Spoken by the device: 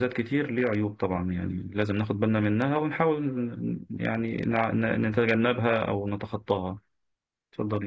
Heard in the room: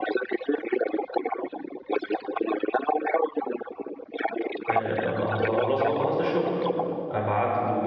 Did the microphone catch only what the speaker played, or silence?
No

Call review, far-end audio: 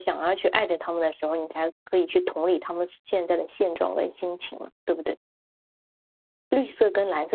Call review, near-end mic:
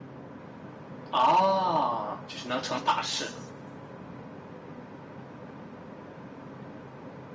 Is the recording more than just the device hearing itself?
Yes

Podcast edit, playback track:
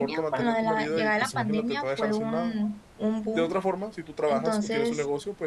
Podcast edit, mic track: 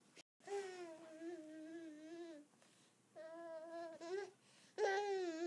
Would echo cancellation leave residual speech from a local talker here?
No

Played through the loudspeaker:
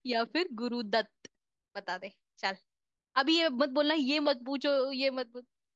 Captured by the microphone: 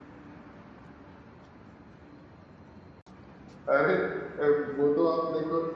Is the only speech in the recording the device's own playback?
No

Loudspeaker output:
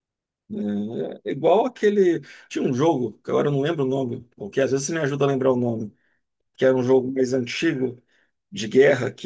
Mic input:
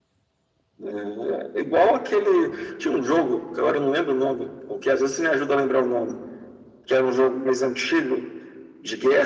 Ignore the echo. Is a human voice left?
No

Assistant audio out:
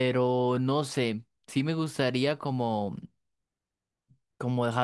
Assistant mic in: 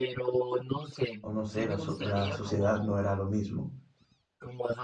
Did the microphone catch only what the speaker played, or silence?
No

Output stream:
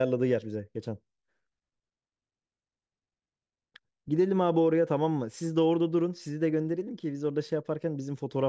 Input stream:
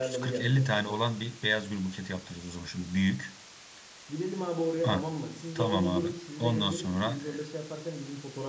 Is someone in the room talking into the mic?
Yes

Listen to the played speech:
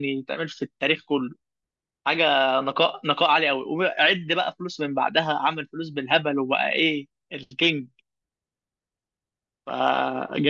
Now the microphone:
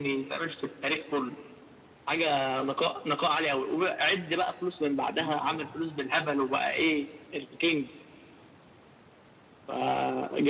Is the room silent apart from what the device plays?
No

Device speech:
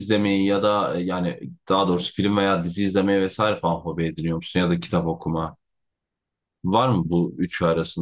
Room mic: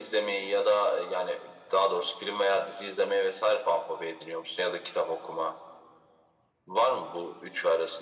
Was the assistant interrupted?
No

